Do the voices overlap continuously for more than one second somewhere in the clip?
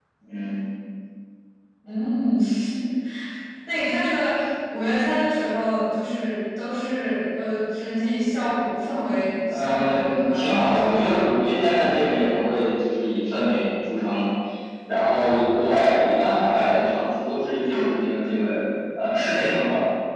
Yes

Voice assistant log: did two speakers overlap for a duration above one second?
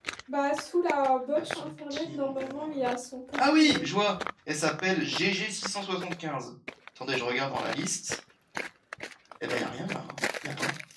Yes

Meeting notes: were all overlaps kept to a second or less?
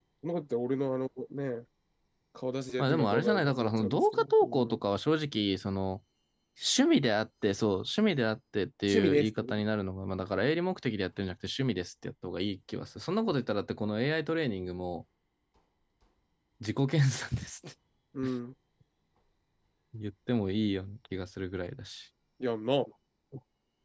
No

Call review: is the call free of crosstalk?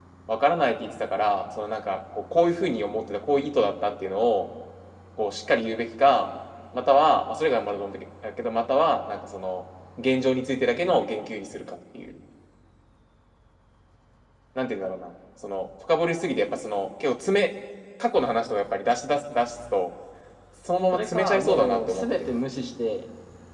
No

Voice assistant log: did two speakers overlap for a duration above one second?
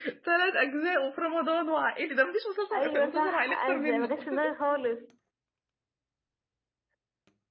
Yes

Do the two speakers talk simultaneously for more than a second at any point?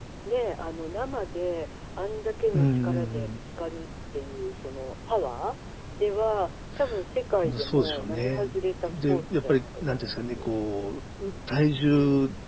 Yes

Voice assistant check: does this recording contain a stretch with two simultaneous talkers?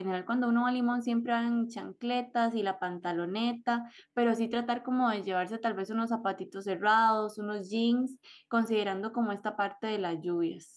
No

